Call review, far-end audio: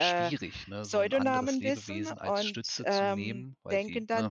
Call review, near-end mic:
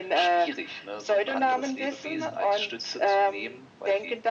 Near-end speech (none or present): present